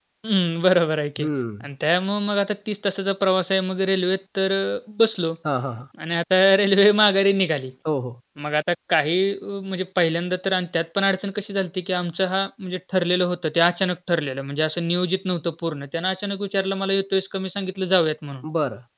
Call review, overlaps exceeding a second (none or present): none